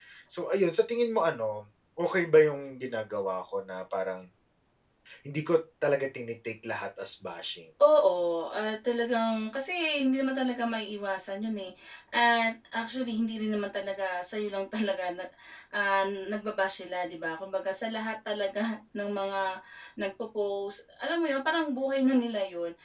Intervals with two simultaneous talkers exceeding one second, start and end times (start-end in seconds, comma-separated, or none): none